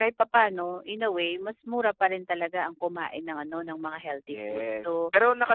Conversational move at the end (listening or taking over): taking over